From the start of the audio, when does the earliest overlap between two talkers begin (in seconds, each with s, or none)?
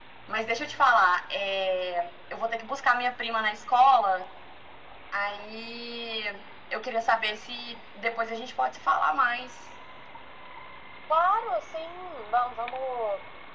none